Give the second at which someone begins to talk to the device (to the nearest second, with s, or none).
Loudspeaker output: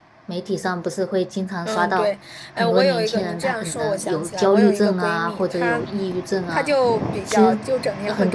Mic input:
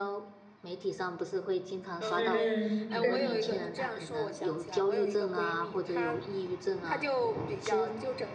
2 s